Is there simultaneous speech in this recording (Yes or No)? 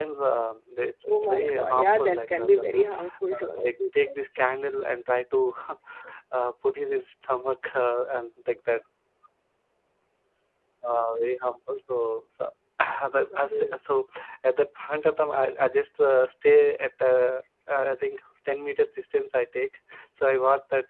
Yes